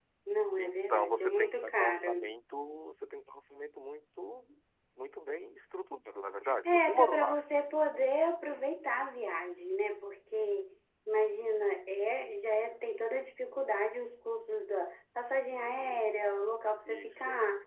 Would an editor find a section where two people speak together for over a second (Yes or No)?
Yes